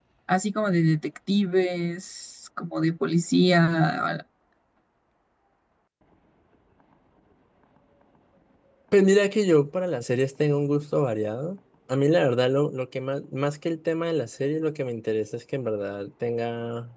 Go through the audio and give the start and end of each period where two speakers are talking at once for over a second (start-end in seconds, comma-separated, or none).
none